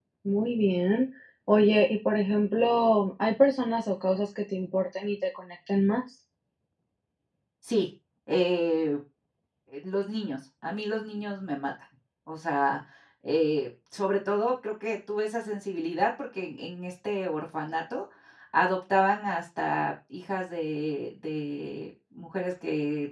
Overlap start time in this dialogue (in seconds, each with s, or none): none